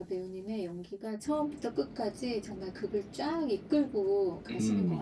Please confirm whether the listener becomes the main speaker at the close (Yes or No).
Yes